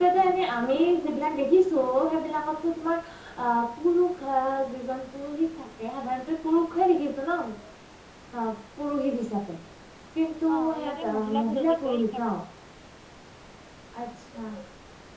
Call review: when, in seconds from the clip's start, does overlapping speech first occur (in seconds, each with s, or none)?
10.5 s